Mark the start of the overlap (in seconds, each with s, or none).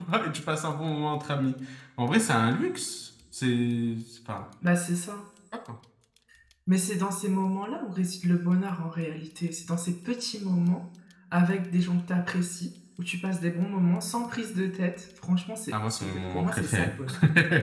15.7 s